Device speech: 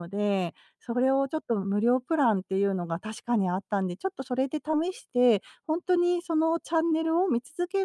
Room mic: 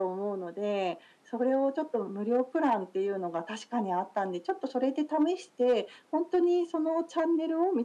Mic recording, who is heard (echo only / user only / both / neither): echo only